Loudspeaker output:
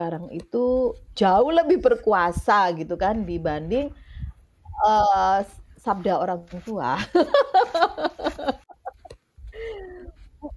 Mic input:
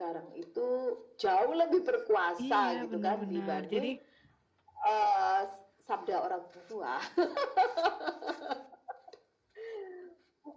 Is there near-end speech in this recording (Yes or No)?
Yes